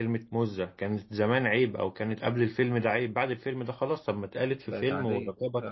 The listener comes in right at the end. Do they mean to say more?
No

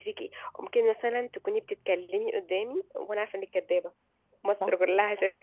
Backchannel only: Yes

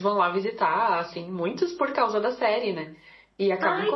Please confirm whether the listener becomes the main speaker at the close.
No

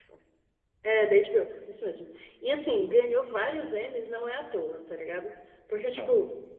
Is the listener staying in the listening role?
Yes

